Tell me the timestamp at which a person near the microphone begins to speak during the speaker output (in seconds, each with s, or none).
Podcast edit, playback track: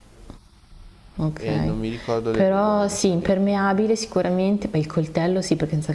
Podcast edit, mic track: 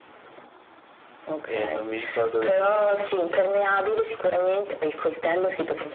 none